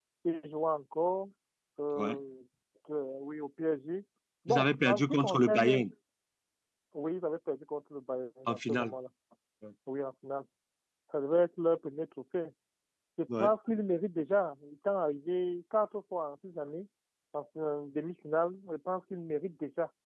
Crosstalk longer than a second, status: present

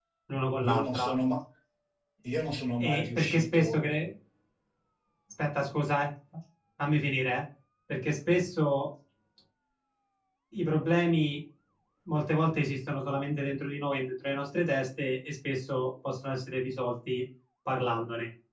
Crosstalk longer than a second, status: present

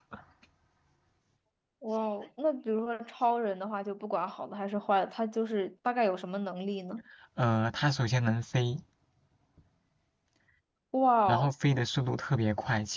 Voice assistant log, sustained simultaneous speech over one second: none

